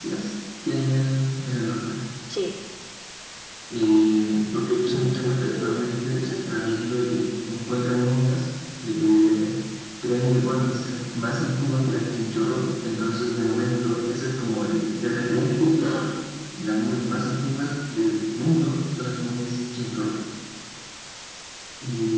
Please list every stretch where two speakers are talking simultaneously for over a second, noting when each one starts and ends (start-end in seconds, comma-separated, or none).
4.9-6.5